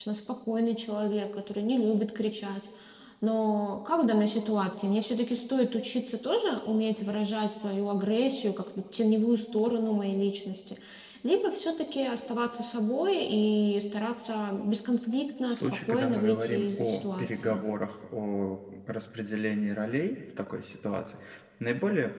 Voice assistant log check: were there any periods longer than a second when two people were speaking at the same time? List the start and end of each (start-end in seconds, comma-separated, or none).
15.5-17.6